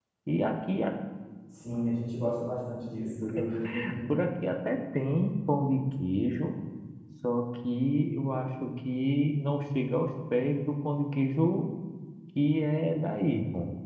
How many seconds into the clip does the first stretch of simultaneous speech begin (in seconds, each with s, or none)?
none